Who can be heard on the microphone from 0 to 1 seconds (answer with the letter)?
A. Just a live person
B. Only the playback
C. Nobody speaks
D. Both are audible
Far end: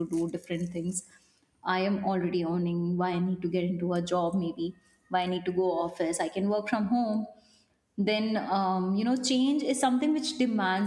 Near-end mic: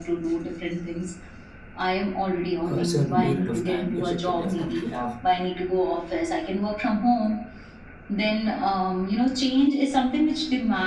B